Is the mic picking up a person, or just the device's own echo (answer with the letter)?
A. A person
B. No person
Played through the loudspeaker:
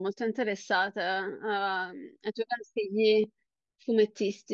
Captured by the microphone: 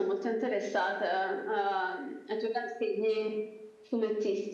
B